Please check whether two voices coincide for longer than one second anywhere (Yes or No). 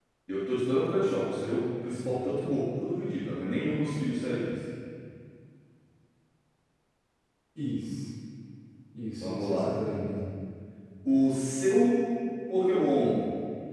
No